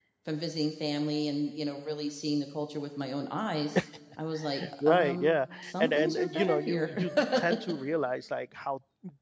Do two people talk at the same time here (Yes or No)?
Yes